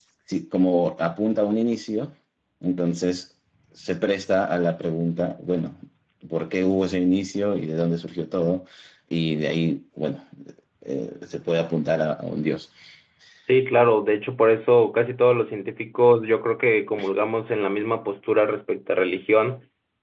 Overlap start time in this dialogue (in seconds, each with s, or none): none